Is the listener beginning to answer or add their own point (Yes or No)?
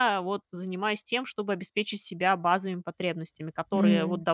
No